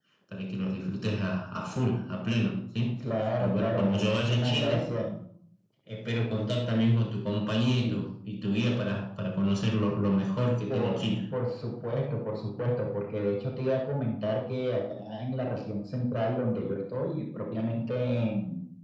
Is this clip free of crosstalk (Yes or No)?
No